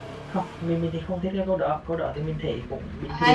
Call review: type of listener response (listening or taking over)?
taking over